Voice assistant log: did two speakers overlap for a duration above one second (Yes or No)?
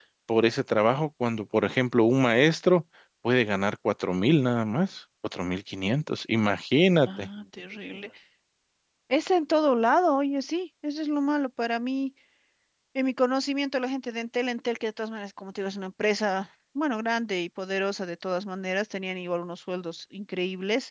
No